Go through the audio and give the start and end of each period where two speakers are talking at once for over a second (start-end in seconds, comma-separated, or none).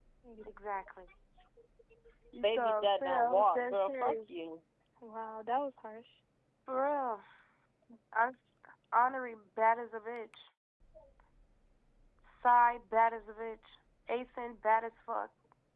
2.4-4.2